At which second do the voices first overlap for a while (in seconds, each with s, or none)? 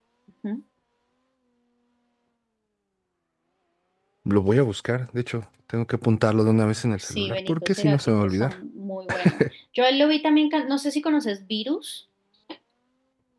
7.0 s